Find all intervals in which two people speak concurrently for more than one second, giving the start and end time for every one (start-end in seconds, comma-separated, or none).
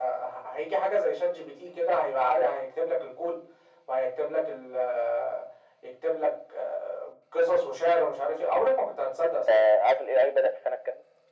none